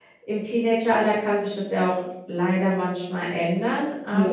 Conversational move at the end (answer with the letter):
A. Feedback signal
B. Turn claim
A